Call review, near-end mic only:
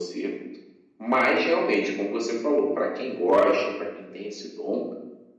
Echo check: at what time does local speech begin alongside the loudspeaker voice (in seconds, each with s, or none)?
none